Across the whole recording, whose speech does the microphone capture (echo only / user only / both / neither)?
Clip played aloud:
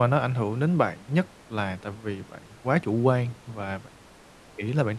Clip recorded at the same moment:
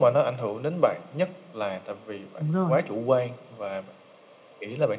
both